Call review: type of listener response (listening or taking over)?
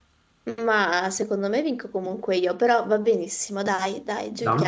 taking over